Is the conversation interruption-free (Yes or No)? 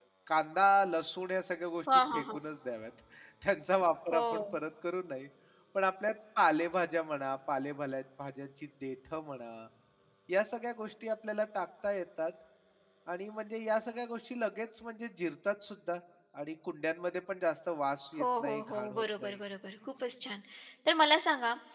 No